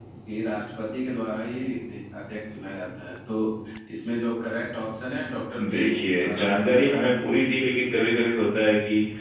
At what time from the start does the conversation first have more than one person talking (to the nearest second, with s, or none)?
6 s